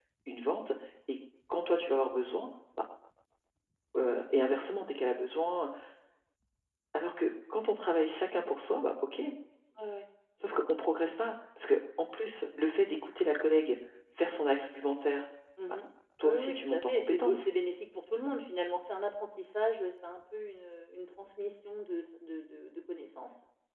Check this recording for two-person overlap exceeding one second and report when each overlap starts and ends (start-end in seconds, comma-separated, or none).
16.2-17.5